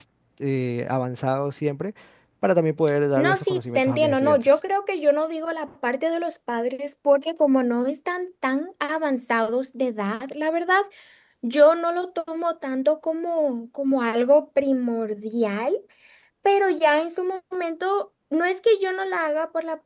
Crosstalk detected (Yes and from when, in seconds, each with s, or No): Yes, from 3.2 s